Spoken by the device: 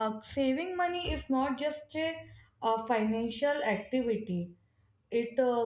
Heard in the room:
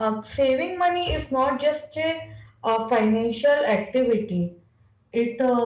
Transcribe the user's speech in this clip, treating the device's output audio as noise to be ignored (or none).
none